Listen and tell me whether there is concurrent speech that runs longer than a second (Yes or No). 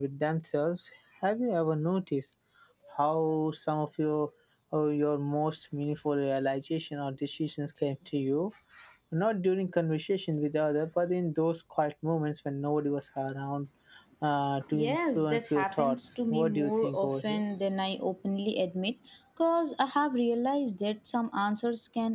Yes